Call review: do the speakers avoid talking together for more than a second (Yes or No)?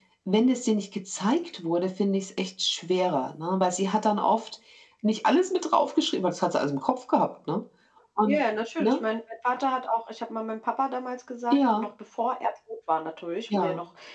Yes